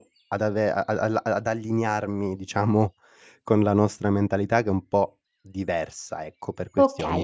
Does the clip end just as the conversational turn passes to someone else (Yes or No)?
Yes